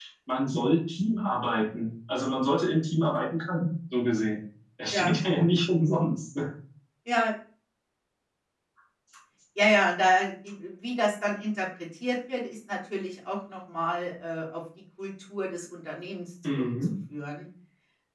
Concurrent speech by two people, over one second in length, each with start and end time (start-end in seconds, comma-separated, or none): none